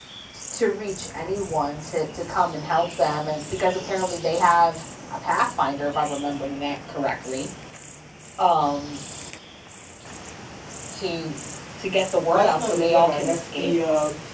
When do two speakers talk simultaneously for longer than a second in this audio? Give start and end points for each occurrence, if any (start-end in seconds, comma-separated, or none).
12.3-13.8